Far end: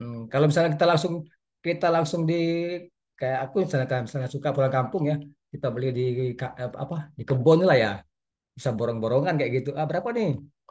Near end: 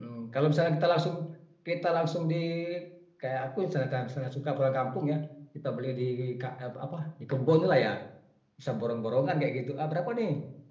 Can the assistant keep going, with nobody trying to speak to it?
Yes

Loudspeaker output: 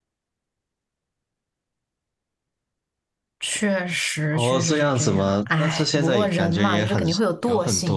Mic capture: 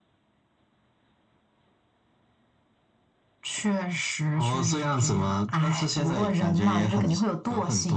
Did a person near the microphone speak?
No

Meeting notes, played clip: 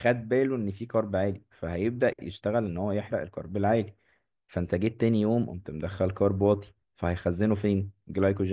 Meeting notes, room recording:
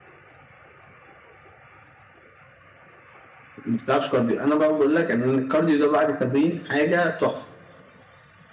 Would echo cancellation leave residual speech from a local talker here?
Yes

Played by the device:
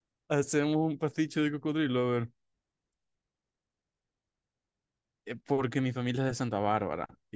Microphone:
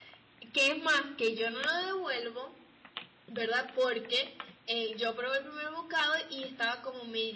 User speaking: Yes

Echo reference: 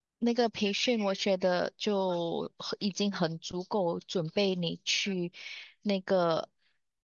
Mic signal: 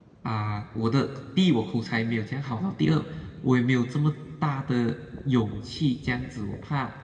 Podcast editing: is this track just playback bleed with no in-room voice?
No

